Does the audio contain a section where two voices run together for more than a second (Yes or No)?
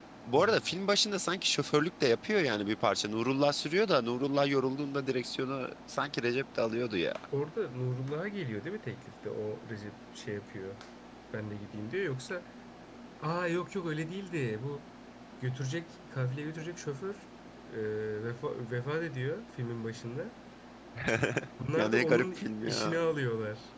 Yes